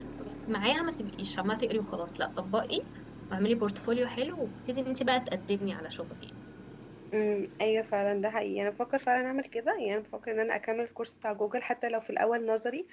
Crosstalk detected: No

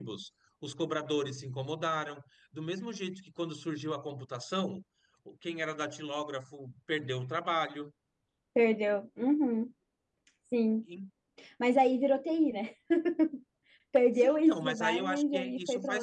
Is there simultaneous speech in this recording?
Yes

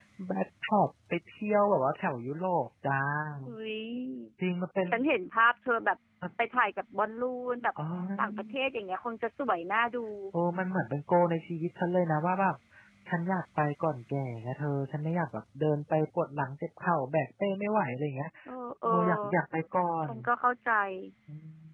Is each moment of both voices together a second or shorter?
Yes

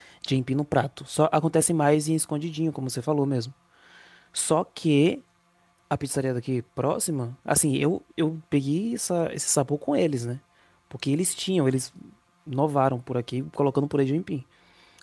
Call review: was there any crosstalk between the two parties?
No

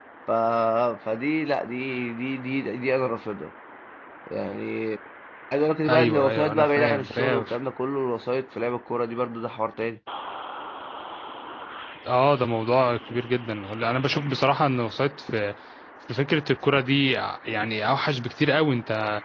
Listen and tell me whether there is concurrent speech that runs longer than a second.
Yes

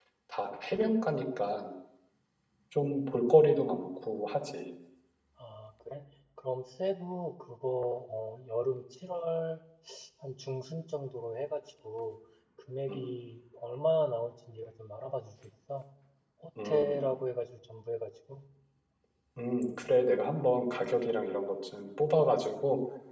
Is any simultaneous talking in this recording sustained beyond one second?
No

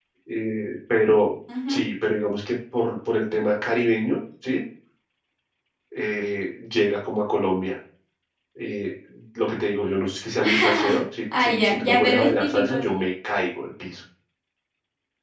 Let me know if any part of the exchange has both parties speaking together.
Yes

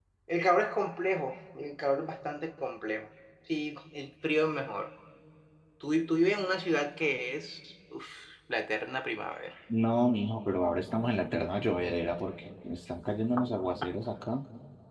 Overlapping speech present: No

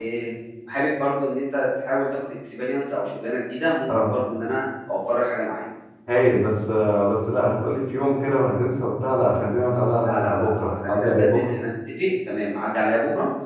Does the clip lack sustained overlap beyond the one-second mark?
No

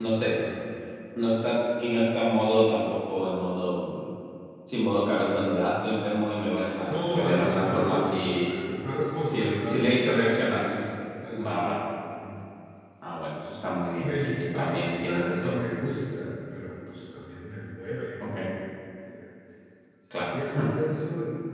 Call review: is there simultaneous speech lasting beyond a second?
Yes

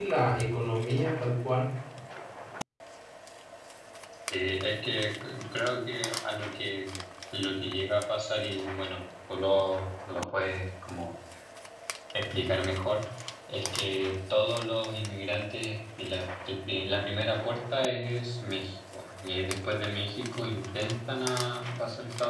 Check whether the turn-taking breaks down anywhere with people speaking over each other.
No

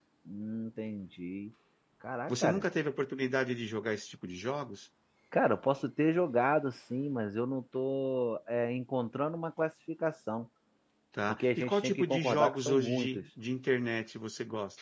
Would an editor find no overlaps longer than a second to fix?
No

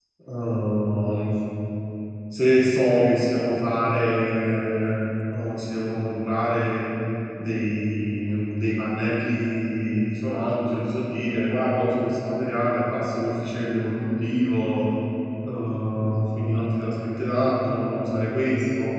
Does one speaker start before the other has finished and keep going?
No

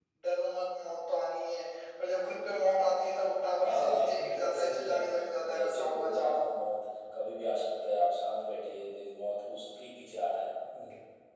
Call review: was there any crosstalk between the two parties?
Yes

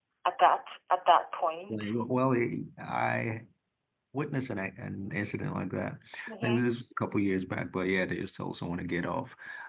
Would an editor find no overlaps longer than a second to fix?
Yes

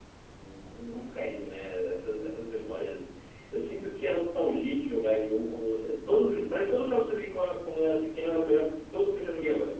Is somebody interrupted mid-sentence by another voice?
No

